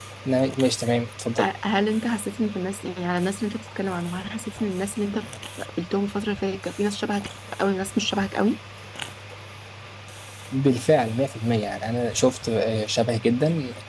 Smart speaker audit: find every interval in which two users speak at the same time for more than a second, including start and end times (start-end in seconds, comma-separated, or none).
none